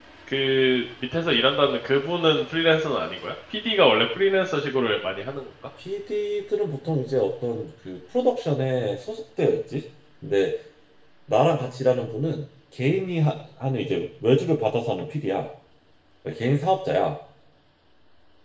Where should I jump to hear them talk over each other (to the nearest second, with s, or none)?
none